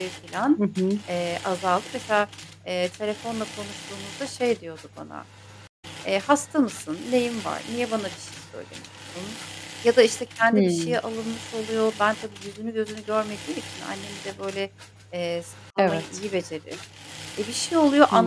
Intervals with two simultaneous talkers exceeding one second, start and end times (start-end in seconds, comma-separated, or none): none